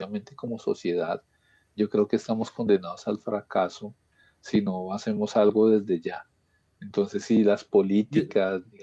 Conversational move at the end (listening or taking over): listening